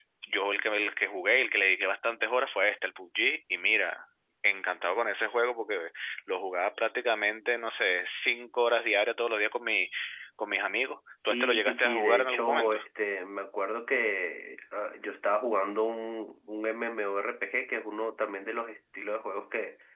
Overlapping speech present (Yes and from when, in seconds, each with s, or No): Yes, from 11.3 s